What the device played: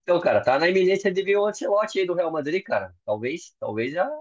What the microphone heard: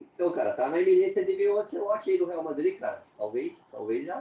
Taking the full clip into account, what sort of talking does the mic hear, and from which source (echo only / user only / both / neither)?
echo only